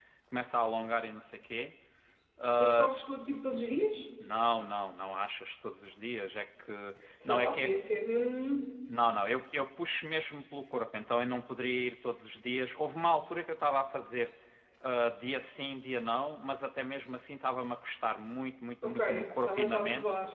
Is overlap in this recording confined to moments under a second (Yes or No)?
No